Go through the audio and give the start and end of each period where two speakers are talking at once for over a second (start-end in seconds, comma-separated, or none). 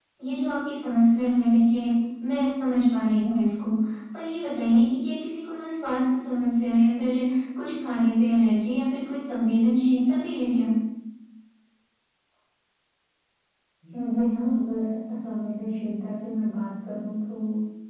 none